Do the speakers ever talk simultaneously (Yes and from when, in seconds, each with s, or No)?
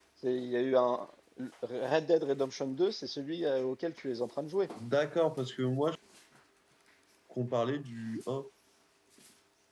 No